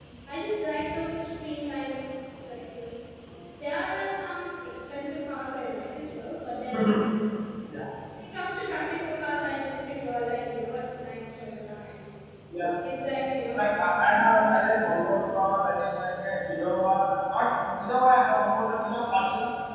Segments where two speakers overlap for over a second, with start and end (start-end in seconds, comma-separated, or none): none